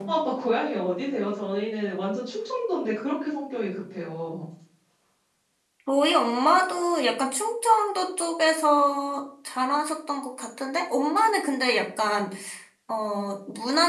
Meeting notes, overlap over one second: none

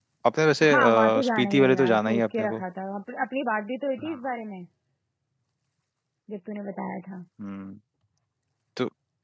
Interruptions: present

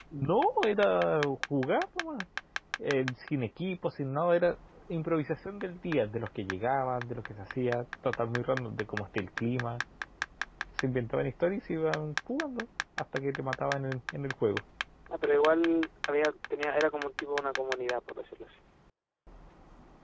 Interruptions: none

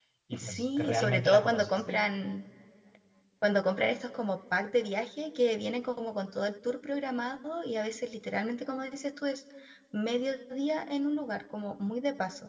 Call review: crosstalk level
present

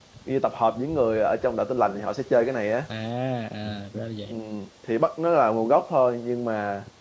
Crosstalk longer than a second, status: none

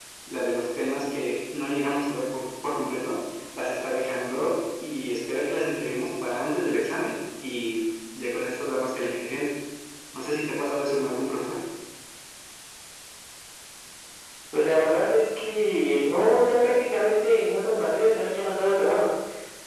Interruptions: none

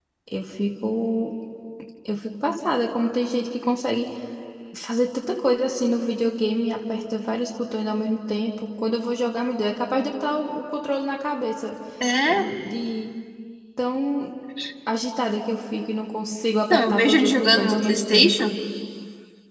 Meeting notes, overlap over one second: present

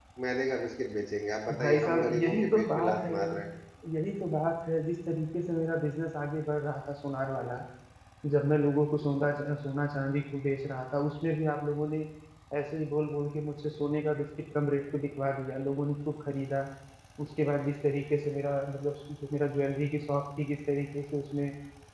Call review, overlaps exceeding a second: present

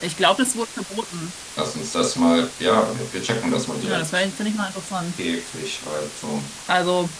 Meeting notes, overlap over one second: none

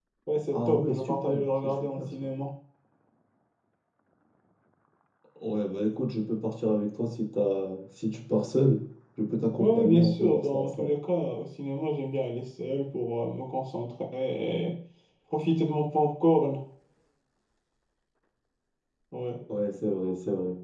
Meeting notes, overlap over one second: present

